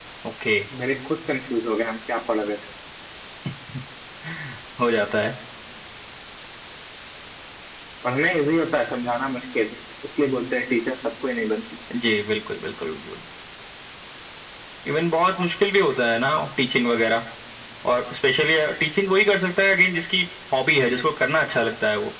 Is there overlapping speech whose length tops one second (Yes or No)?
No